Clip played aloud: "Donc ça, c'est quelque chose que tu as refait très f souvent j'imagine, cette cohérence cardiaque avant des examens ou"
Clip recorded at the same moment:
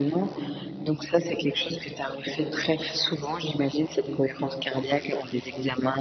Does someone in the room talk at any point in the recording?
No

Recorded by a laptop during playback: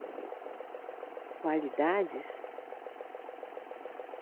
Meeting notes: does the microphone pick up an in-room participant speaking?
Yes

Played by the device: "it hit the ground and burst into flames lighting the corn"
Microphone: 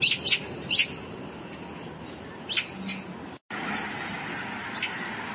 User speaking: No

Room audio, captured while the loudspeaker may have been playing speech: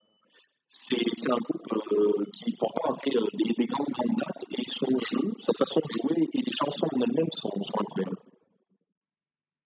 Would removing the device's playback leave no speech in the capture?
Yes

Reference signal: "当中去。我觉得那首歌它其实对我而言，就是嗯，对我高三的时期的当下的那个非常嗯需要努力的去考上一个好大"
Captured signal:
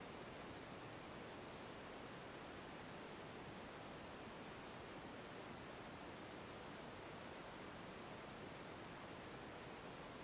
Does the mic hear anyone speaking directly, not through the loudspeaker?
No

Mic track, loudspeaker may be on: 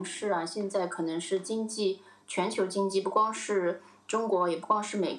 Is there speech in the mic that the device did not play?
No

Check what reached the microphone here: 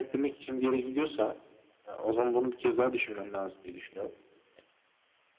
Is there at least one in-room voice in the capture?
No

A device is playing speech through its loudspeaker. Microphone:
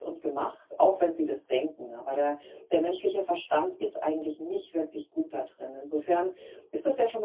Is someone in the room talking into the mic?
Yes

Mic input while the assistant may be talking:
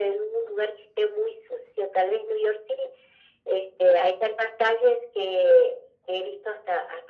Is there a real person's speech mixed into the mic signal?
No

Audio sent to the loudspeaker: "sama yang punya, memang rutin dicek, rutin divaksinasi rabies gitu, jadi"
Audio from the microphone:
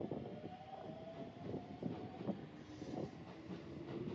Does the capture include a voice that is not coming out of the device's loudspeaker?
No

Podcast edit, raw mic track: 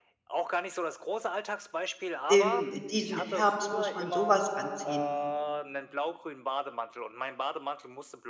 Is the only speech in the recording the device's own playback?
No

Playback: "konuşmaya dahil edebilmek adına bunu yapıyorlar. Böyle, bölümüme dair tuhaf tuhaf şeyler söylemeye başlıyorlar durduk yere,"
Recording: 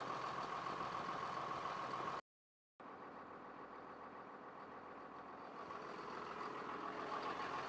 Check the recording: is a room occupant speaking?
No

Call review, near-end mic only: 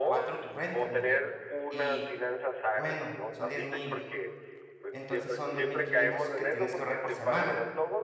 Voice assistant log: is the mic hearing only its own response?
No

